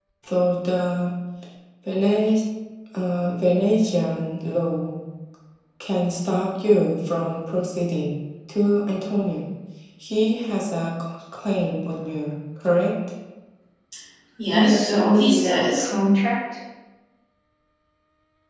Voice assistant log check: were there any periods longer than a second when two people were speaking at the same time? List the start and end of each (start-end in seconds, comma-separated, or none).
14.5-15.9